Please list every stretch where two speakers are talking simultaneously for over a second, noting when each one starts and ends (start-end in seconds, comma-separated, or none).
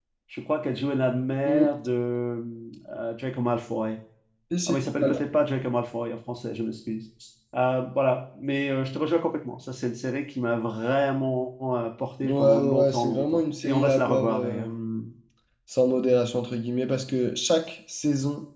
12.2-14.7